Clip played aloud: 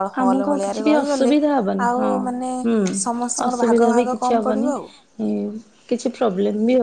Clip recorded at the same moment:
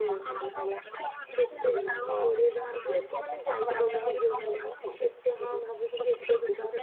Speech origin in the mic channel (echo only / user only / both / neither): both